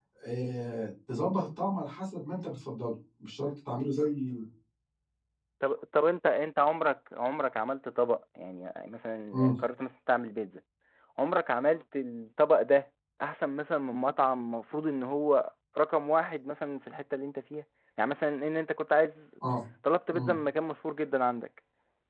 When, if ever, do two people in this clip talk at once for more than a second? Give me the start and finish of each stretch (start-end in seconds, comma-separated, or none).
none